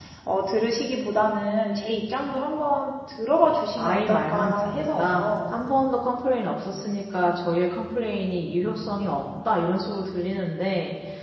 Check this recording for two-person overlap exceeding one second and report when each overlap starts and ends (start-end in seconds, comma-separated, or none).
3.8-5.6